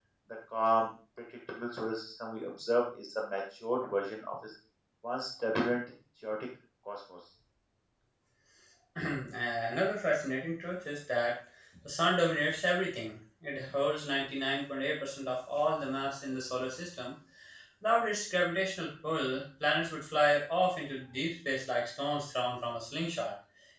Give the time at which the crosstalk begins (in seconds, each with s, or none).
none